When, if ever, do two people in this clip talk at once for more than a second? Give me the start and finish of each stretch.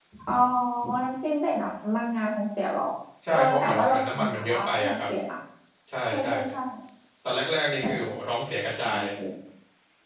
3.3-5.0

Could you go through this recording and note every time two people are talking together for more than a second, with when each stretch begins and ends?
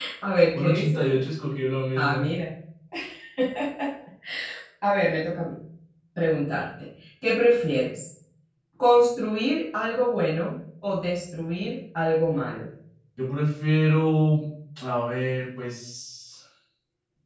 none

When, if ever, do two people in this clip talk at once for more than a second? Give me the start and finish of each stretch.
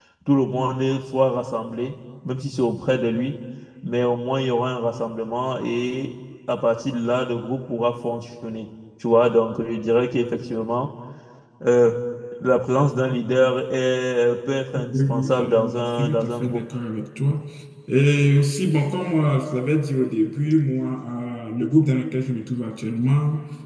14.7-16.6

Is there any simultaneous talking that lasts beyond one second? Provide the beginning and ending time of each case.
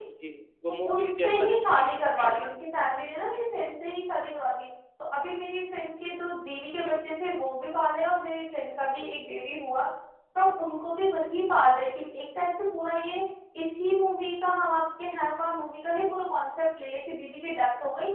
0.9-2.5

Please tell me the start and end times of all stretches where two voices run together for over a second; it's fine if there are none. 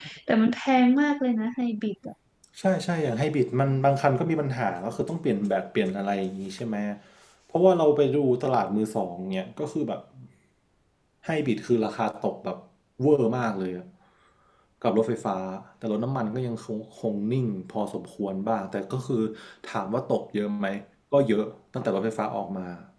none

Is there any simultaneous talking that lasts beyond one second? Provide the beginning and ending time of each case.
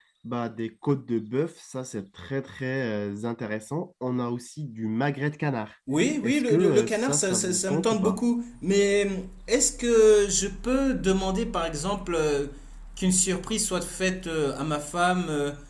6.2-8.2

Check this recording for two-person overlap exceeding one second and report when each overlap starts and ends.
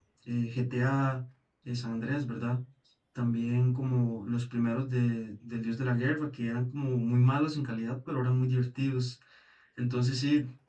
none

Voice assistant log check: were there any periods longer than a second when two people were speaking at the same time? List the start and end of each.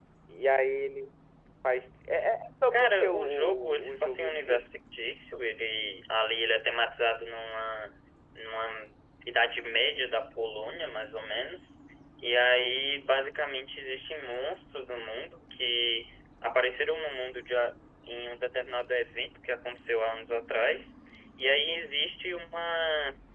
2.7-4.6

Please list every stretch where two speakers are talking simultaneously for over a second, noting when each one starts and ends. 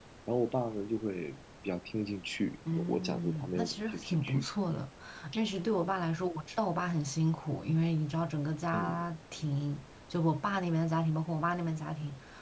2.8-4.4

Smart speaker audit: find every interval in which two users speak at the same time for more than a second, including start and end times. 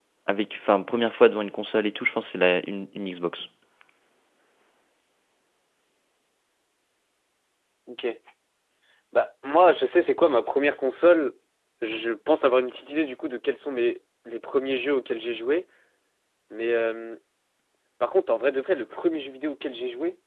none

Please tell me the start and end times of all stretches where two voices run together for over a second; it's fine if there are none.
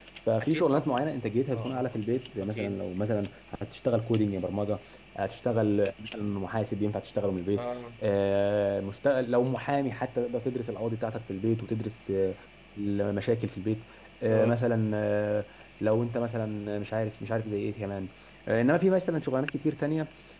none

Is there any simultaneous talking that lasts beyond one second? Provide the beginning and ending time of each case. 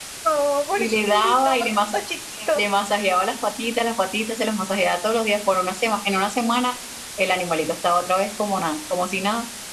0.8-2.0

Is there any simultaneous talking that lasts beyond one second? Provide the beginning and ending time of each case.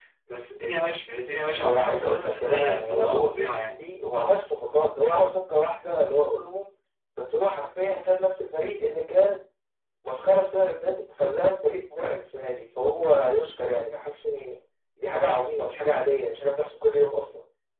1.5-3.9

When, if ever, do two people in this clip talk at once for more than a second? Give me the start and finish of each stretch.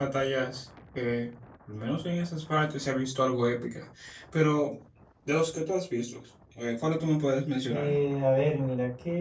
none

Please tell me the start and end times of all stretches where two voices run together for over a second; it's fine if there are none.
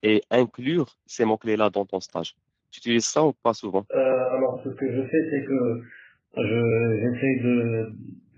none

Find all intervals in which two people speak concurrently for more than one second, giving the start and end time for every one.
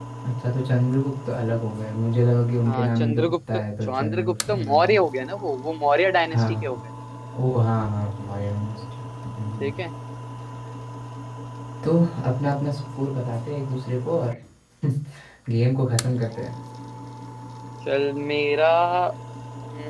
2.7-5.0

